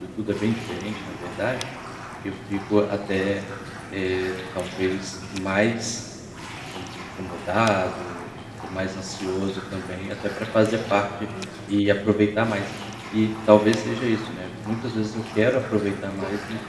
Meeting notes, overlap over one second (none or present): none